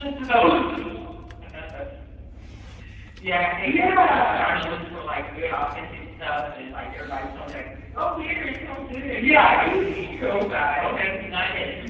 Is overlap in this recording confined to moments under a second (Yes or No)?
No